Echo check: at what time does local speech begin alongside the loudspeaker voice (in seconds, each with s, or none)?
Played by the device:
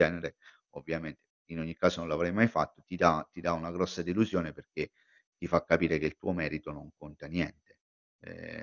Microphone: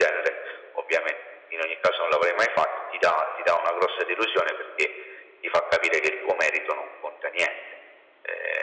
none